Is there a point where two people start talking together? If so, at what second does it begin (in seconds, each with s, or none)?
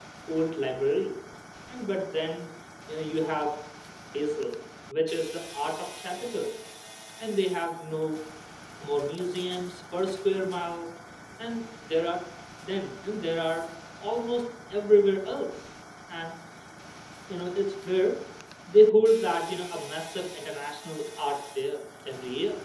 none